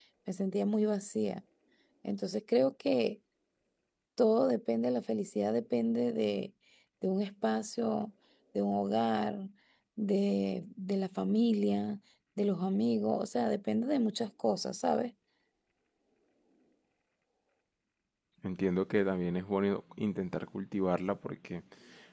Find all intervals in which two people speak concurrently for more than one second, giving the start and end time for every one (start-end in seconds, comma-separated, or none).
none